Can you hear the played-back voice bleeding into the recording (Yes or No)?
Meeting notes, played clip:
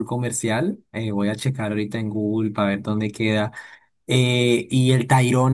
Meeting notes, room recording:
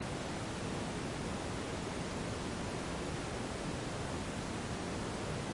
No